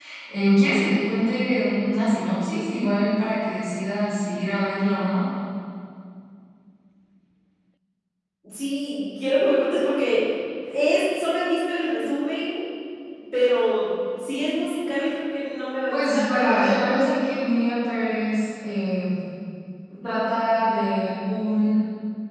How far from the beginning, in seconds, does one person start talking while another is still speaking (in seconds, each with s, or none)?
15.9 s